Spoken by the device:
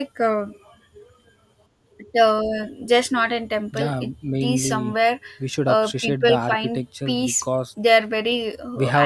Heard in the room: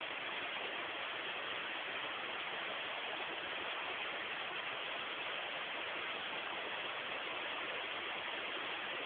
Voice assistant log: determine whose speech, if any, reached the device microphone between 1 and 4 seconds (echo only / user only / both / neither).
neither